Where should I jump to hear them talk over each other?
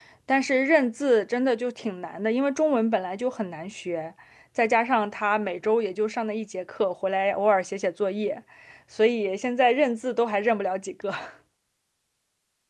none

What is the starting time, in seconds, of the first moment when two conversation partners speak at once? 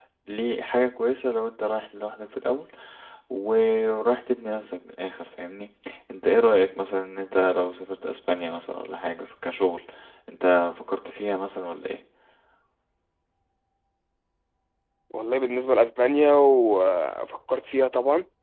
none

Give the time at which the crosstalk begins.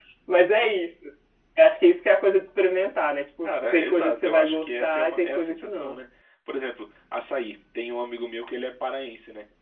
3 s

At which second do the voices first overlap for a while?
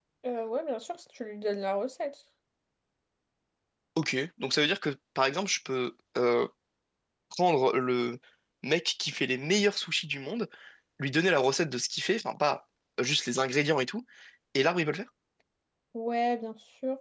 none

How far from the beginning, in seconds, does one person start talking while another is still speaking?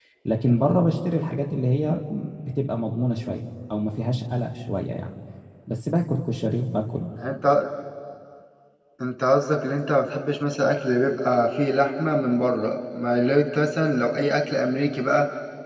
none

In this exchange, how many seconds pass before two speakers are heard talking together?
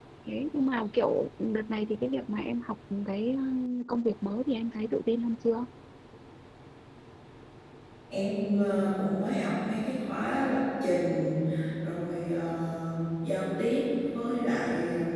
none

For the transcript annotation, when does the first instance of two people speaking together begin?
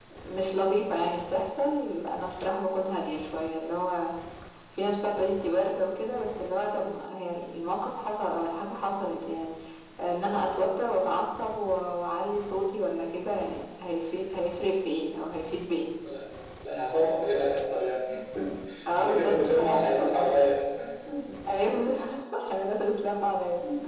19 s

